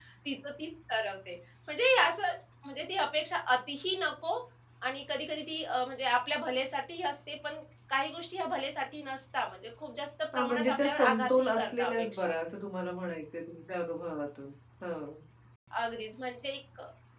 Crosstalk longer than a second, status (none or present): present